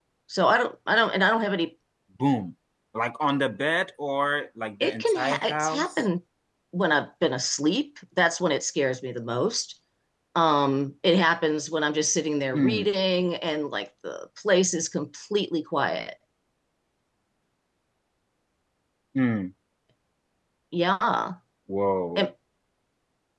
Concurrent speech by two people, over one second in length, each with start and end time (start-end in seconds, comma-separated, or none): 4.8-6.0